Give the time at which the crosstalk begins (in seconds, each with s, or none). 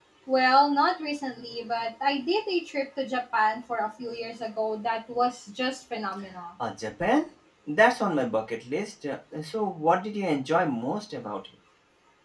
none